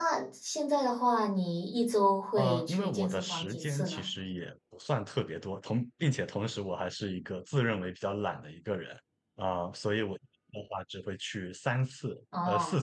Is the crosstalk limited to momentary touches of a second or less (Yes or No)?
No